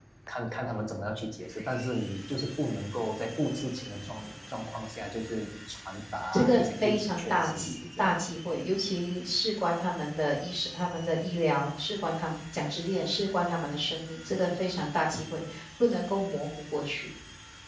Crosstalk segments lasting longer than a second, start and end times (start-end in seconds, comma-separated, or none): 6.3-8.1